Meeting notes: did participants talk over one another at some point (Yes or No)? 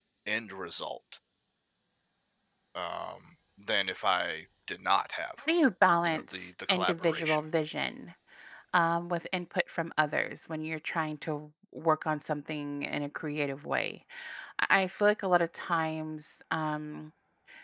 Yes